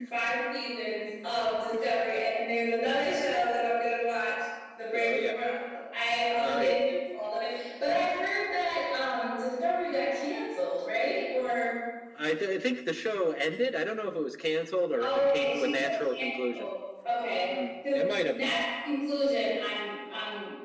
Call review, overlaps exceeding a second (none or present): present